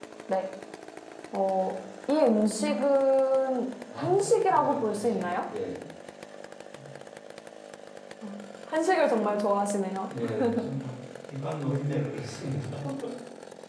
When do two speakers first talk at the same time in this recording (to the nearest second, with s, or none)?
4 s